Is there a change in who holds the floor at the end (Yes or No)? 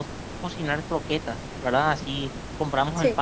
No